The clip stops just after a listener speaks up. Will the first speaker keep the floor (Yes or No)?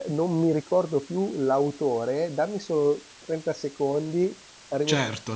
No